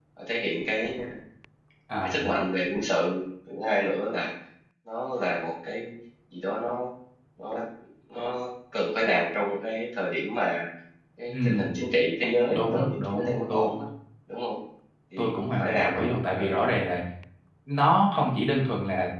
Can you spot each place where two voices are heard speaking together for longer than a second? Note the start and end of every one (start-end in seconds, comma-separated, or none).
12.5-13.7, 15.2-16.6